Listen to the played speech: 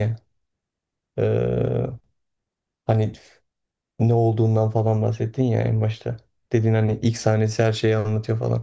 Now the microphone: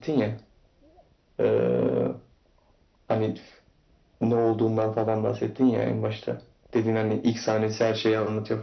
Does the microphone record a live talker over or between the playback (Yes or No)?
No